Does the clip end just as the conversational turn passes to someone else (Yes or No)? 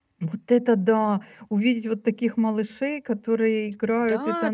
Yes